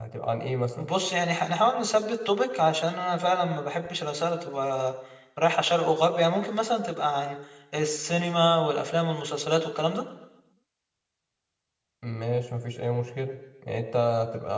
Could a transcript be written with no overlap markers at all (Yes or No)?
Yes